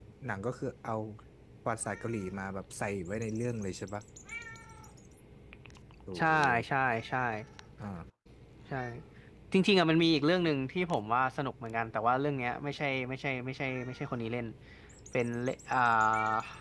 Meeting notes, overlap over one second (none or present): none